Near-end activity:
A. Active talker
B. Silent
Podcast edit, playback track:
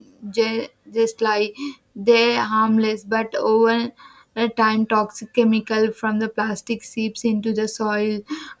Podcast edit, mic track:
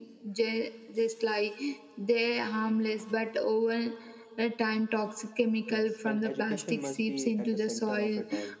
A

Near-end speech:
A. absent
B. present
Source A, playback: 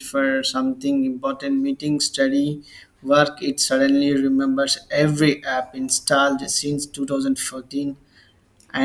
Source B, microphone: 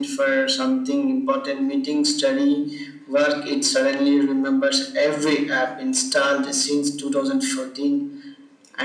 A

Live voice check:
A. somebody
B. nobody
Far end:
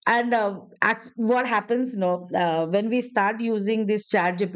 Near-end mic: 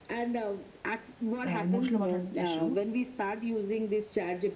A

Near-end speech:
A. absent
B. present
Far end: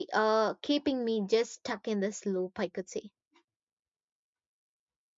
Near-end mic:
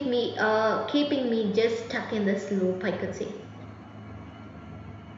A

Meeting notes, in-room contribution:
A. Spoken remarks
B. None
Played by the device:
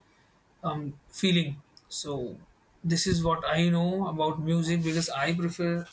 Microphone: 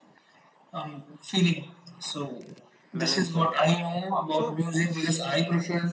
A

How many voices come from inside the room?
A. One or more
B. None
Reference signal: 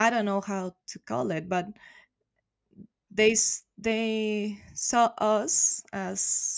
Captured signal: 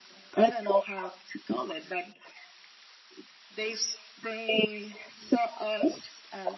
B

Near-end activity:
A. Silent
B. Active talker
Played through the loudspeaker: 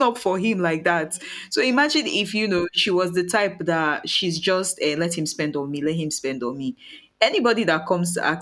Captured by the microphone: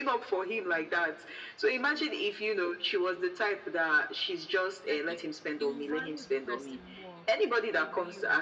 B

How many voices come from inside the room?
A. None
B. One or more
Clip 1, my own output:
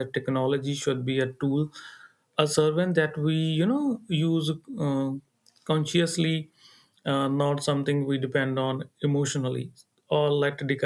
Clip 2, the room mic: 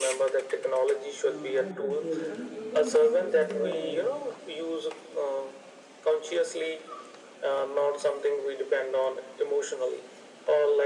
B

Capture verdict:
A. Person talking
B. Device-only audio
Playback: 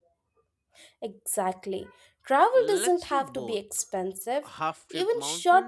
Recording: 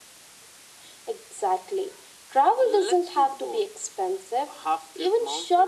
B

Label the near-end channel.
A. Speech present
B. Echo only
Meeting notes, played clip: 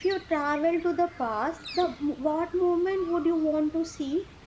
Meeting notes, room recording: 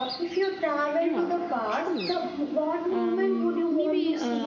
A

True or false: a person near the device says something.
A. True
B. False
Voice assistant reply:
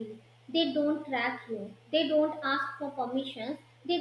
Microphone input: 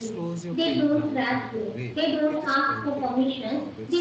A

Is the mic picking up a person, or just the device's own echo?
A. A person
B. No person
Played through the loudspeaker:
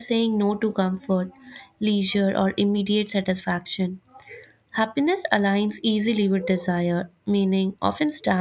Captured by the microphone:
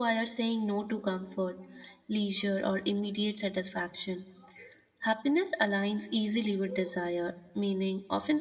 B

